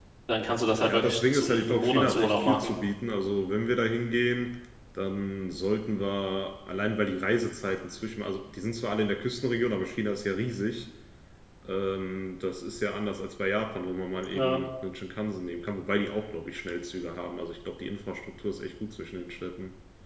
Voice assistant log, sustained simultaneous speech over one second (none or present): present